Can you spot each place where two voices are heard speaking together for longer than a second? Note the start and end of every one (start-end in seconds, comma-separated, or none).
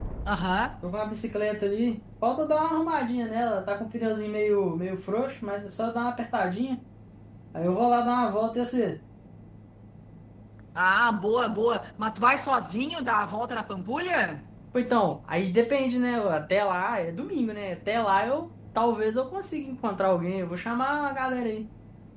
none